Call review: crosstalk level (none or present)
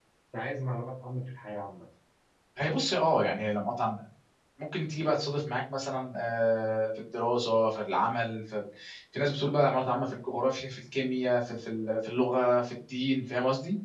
none